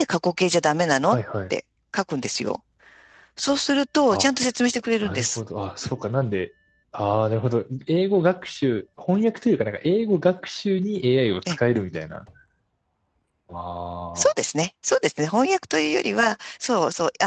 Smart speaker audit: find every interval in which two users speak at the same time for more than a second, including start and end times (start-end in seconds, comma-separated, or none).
none